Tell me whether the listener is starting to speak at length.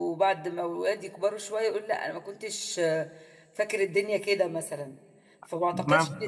No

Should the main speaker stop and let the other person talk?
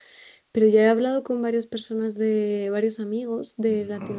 No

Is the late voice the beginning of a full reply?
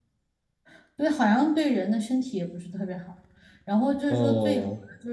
No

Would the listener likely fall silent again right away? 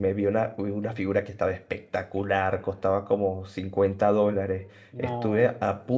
Yes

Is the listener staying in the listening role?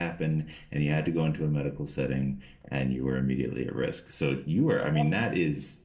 Yes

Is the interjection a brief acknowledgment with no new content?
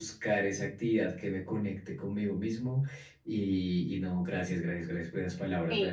No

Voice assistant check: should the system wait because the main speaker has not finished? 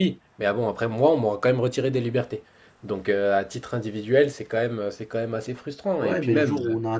No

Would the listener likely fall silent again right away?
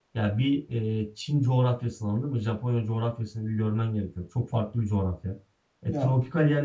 Yes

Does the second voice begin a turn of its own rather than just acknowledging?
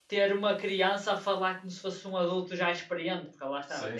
Yes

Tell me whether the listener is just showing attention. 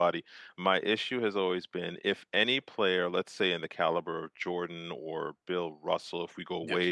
Yes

